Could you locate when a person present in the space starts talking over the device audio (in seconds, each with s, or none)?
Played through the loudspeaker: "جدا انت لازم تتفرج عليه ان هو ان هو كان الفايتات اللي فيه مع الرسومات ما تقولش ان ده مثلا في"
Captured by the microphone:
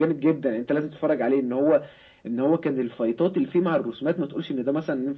none